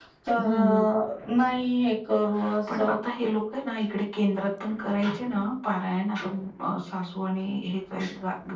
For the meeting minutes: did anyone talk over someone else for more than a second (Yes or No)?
No